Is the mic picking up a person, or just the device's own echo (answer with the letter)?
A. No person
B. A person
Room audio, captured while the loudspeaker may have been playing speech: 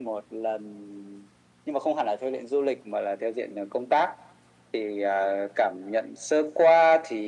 A